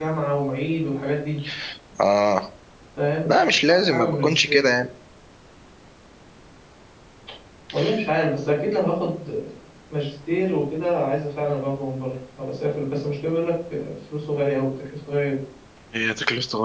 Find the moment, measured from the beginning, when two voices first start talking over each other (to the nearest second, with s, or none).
3 s